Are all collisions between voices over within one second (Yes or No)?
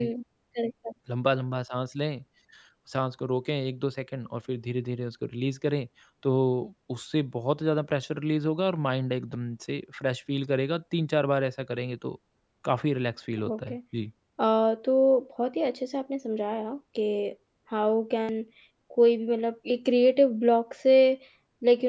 Yes